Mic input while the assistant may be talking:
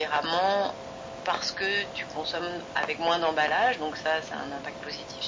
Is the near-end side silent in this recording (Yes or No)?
Yes